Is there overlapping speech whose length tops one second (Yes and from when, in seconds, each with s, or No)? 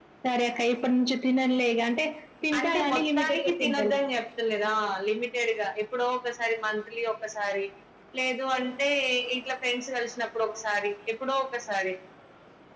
Yes, from 2.6 s